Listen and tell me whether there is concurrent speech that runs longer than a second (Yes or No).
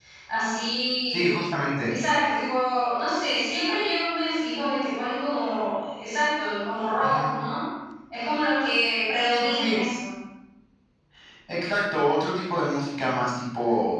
No